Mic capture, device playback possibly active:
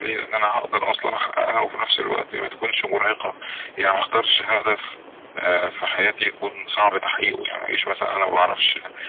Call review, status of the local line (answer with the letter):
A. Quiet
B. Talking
A